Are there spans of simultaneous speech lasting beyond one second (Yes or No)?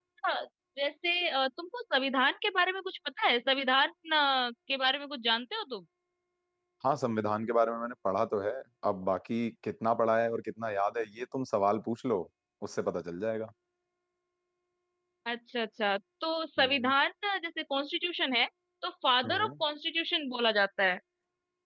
No